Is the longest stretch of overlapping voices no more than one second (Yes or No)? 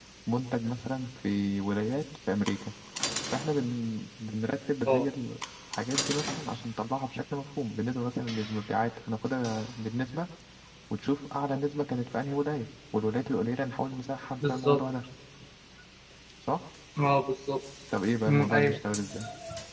Yes